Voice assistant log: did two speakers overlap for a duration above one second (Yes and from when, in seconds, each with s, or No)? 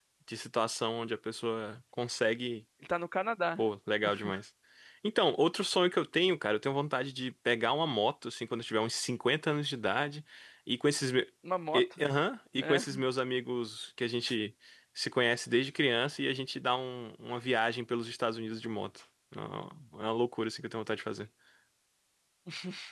No